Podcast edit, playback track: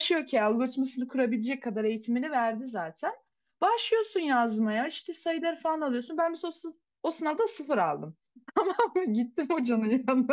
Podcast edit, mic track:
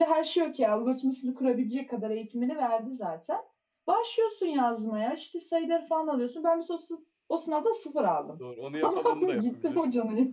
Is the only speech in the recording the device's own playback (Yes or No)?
No